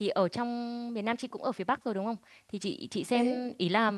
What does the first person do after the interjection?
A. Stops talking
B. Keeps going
B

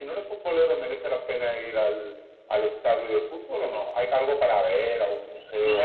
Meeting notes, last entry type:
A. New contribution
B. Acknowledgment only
A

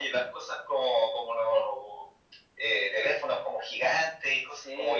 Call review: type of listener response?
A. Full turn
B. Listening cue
A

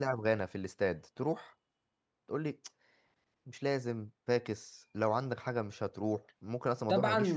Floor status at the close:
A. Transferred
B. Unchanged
A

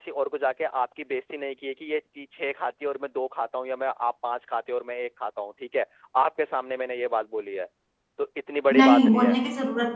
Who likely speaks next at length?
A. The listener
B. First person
A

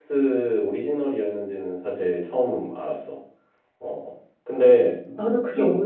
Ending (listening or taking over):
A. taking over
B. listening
A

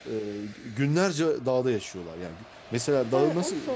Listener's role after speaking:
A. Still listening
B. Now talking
B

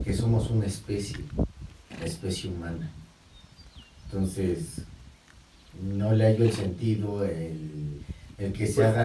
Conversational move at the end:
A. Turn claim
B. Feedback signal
B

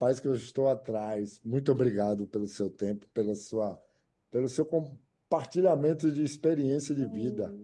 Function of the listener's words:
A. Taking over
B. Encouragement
A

